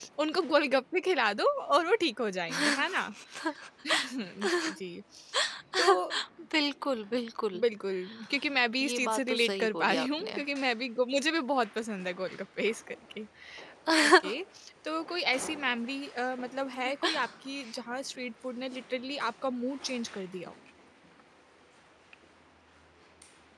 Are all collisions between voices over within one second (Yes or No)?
No